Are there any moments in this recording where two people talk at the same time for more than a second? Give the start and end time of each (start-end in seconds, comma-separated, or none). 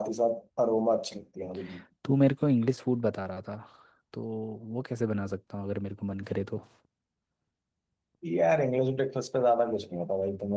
none